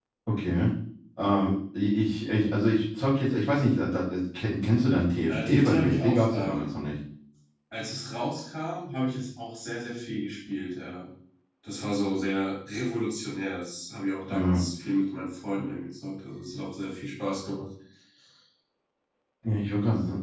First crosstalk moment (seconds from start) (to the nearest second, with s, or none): 5 s